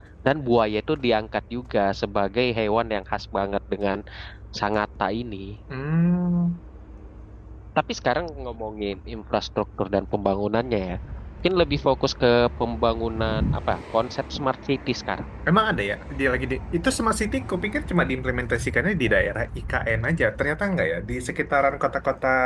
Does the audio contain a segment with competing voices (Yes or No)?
No